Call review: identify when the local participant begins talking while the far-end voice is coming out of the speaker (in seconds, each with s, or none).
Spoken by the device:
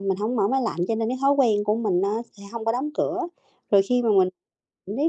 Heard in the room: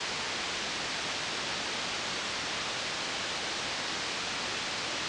none